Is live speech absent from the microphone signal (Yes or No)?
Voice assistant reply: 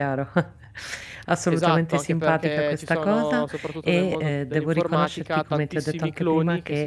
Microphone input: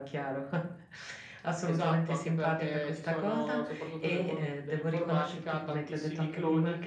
Yes